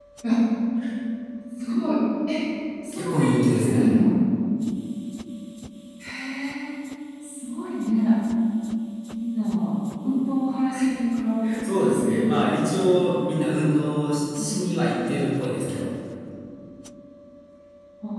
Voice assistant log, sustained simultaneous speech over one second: present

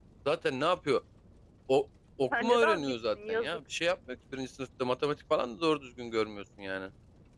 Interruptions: present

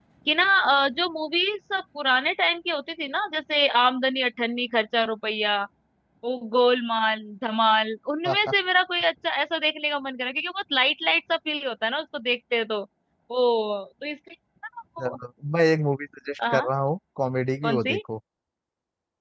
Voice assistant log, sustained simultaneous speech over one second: none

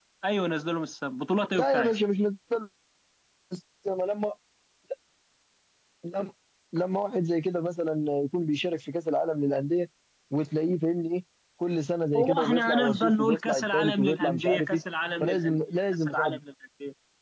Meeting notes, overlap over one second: present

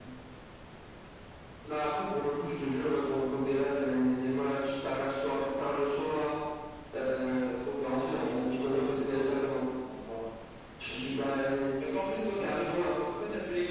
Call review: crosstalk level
present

